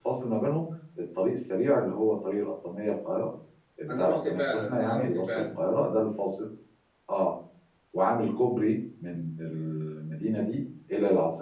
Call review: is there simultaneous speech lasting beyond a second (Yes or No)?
Yes